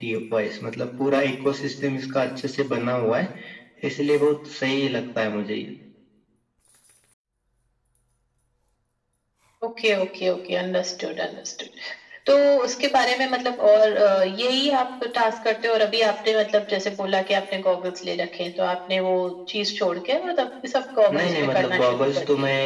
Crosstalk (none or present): present